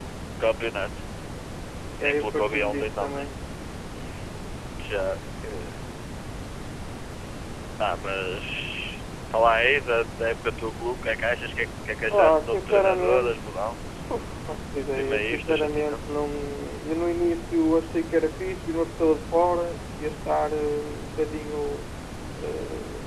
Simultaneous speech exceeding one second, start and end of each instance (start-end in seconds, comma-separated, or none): 2.0-3.3, 12.1-13.3, 14.9-16.1